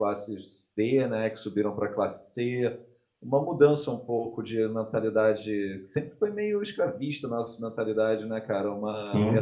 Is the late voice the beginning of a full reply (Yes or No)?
No